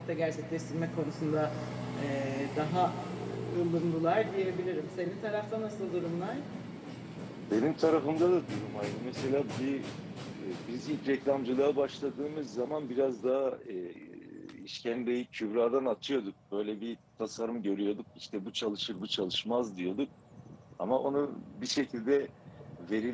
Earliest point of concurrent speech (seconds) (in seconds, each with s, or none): none